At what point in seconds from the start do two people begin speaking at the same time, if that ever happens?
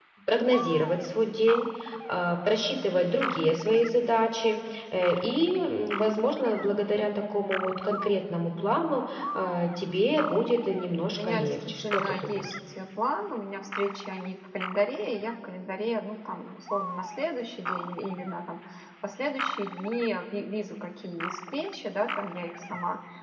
11 s

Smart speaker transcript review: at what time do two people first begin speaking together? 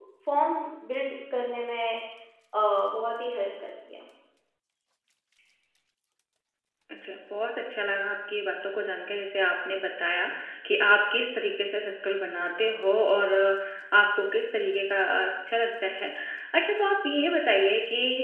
none

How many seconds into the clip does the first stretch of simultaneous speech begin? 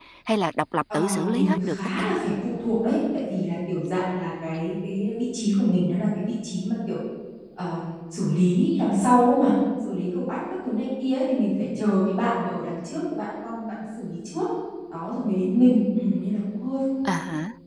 1 s

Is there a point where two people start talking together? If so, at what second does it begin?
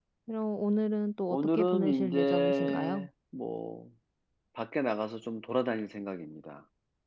1 s

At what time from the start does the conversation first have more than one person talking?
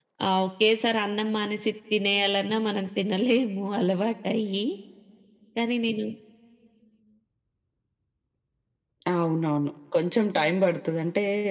none

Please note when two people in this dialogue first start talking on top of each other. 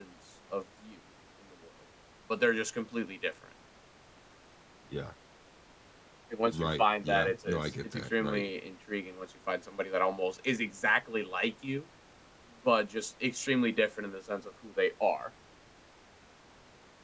7 s

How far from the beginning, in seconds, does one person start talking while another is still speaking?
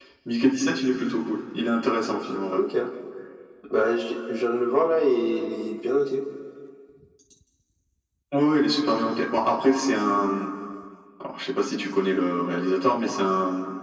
none

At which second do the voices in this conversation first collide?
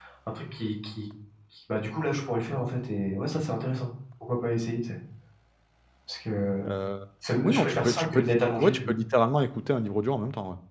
7 s

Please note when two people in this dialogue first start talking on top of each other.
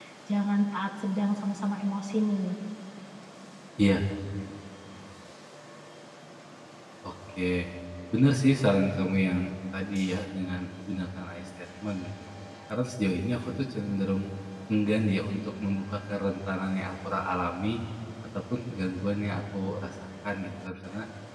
none

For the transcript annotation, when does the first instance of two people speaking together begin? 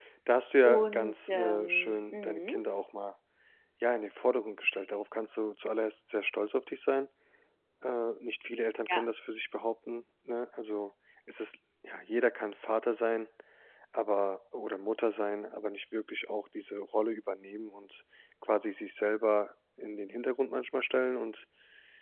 1 s

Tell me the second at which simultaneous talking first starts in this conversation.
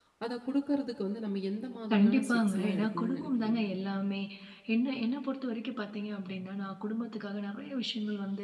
2 s

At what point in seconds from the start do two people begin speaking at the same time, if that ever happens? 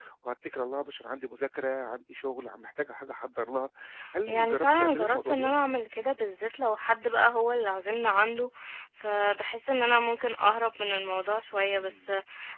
4 s

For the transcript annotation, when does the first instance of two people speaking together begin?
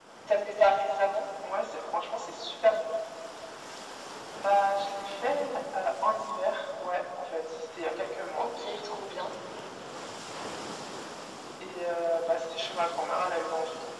none

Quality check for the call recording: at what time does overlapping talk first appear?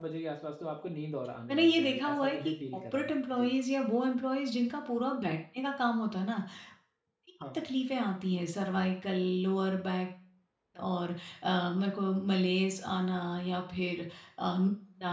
1 s

